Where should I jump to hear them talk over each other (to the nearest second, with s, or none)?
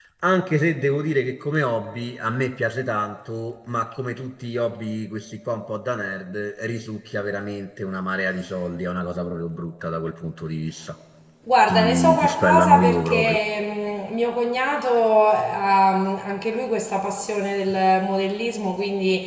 12 s